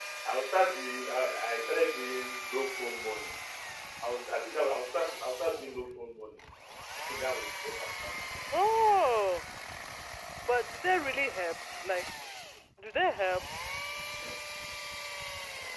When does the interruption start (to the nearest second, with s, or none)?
none